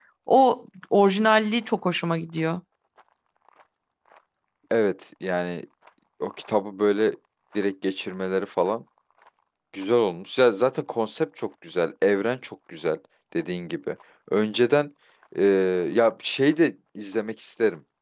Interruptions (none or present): none